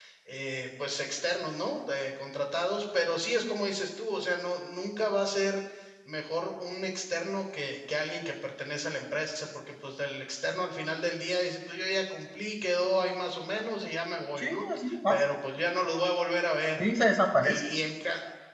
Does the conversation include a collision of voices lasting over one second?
No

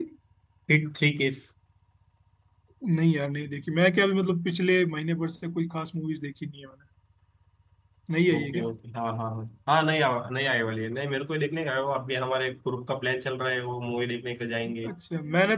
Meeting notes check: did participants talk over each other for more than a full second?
No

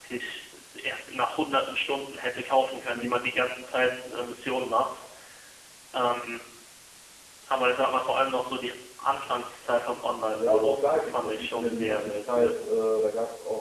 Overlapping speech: Yes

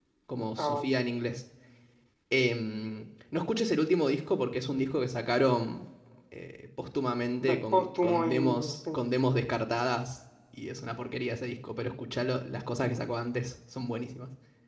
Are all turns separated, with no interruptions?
No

